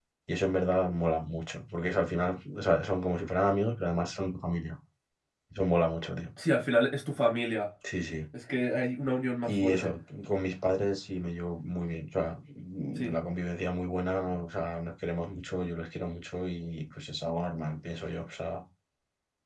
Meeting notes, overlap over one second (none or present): none